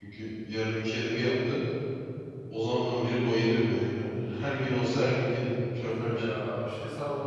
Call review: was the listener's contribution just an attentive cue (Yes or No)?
No